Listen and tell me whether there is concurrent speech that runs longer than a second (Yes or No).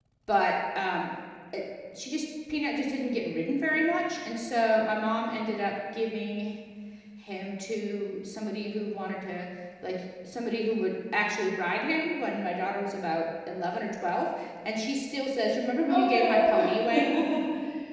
Yes